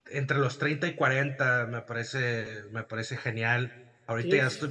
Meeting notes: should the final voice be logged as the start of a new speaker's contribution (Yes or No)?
No